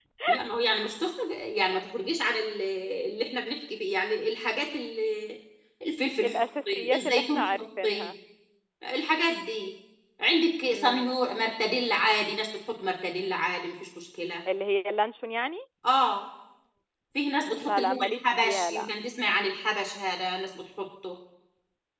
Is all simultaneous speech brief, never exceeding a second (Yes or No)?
No